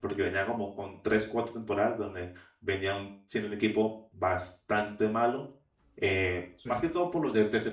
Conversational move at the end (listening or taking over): listening